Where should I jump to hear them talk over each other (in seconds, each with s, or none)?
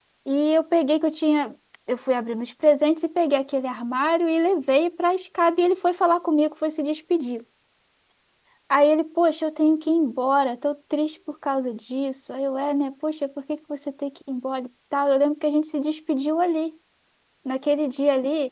none